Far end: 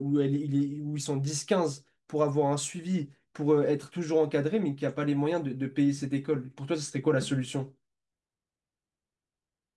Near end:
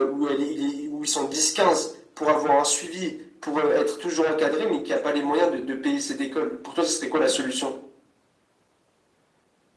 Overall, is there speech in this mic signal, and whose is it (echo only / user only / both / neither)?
echo only